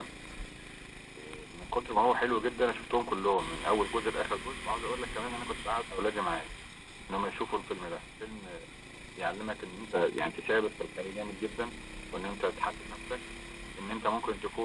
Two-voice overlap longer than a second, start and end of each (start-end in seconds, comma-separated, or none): none